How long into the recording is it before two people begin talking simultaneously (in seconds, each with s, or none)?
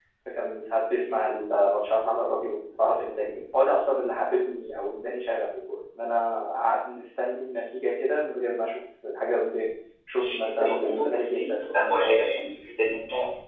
10.1 s